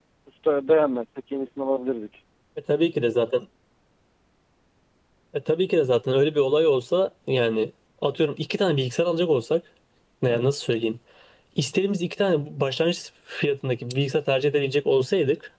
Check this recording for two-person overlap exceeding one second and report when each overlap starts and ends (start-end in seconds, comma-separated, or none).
none